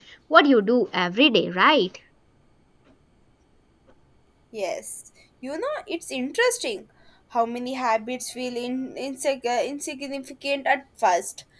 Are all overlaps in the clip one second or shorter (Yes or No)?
Yes